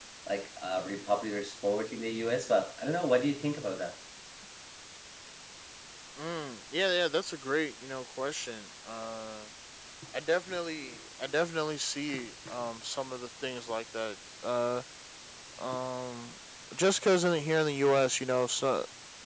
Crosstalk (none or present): none